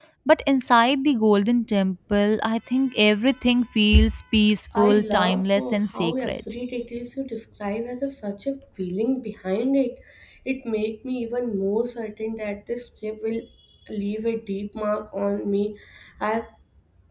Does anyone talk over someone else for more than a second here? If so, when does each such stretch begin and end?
4.8-6.3

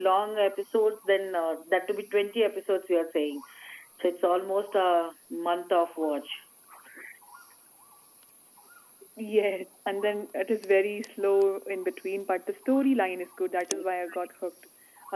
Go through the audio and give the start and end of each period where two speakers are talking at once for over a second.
none

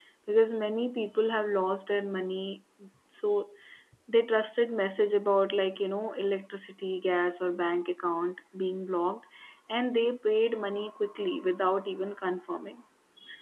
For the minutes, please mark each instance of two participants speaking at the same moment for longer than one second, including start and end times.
none

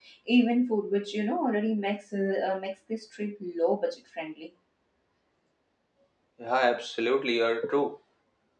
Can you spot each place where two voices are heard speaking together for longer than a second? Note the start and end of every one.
none

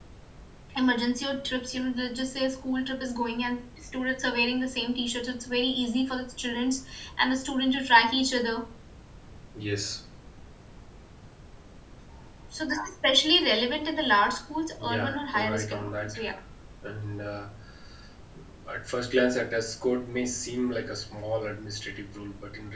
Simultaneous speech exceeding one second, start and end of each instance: 14.8-16.2

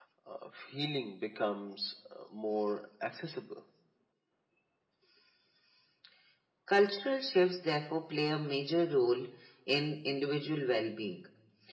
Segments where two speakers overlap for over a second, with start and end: none

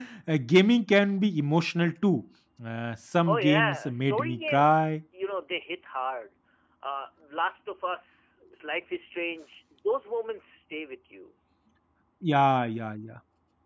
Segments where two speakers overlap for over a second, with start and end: 3.2-4.9

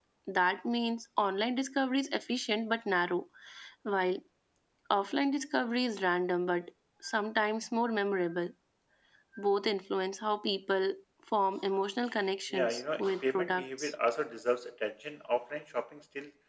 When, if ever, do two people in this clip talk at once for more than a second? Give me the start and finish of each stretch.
12.5-13.9

